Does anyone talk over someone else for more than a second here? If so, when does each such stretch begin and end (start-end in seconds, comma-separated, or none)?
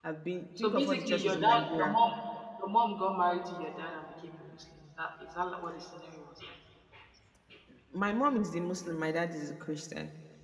0.6-2.0